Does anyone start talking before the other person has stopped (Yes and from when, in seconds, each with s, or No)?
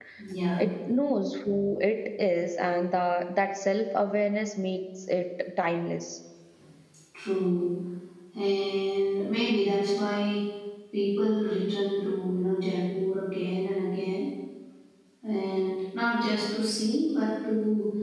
No